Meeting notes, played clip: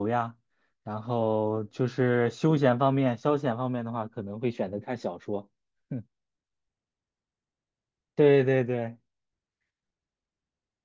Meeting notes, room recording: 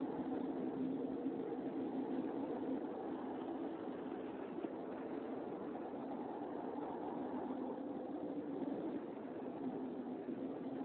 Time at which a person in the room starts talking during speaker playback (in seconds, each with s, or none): none